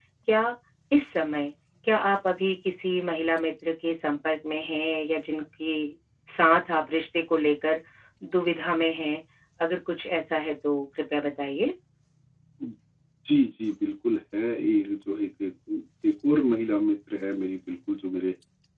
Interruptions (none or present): none